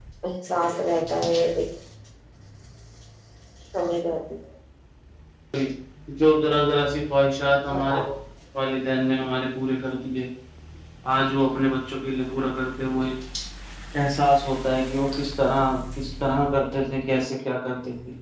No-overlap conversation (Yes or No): Yes